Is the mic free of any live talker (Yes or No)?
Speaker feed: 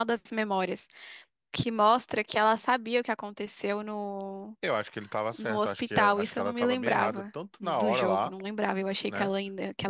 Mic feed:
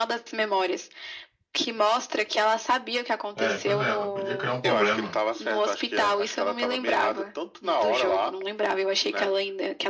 No